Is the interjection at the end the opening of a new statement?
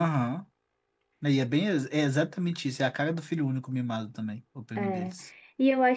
Yes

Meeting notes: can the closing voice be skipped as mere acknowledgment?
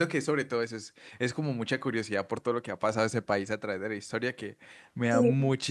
Yes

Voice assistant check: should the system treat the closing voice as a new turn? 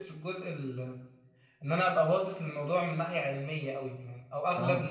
No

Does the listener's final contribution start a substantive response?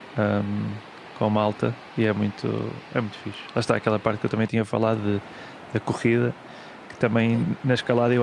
No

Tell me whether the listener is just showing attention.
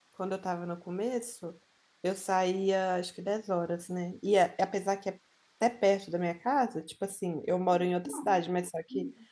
Yes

